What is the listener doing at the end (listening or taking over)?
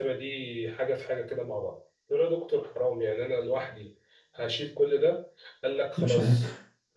listening